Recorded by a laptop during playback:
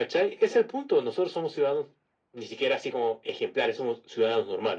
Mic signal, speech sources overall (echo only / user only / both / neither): echo only